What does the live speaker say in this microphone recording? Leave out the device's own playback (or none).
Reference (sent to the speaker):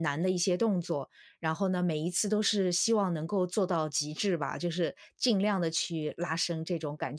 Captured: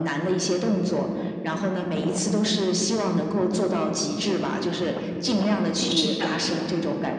是的，